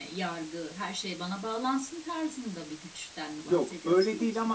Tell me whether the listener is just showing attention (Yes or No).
No